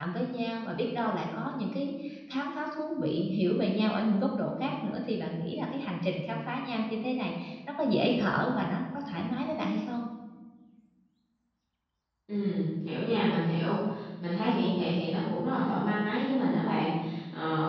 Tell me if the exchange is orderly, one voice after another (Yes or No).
Yes